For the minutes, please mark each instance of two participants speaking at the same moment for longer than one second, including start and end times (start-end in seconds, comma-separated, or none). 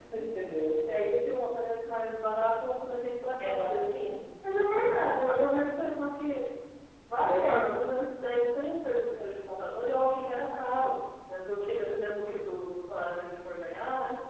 none